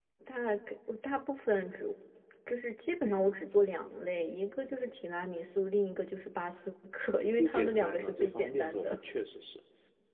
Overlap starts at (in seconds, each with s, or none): 7.2 s